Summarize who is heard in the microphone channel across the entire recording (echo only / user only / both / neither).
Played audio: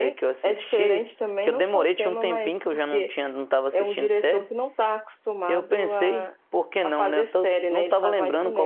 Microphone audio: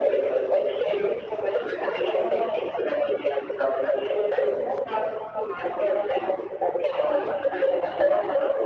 echo only